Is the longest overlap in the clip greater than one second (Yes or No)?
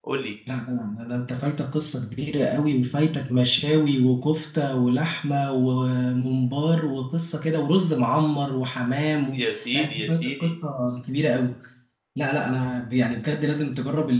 Yes